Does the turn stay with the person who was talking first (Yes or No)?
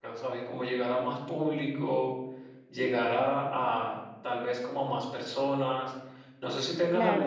No